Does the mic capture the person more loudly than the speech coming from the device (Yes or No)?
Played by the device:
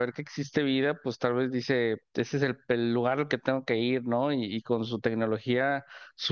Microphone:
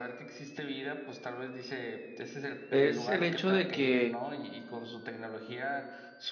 Yes